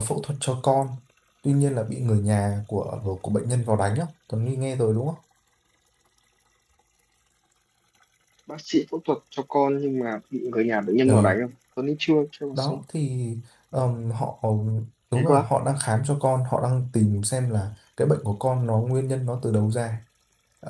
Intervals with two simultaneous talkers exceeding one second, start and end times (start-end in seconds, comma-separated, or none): none